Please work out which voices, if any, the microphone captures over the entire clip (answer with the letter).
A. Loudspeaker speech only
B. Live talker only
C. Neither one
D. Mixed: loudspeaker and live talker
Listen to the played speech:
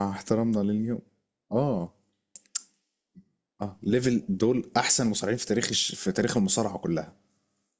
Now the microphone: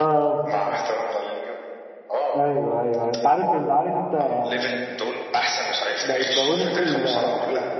D